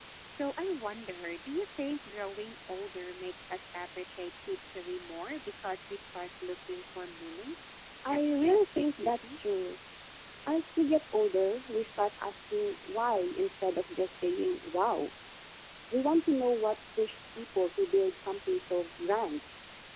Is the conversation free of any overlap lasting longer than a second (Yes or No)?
No